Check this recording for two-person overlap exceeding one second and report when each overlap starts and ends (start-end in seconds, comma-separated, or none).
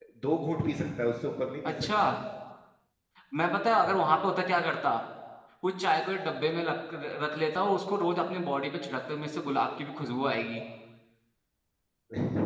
none